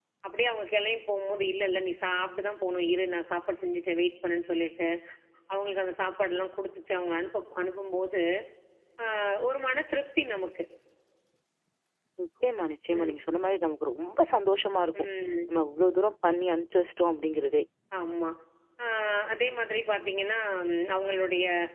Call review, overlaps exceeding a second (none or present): none